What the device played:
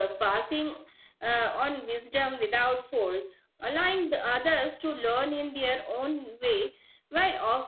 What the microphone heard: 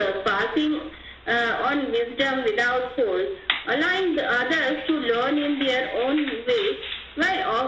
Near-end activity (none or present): none